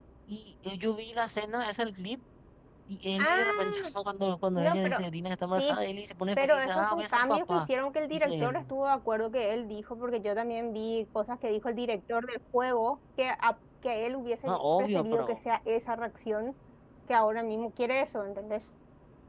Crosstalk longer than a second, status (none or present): present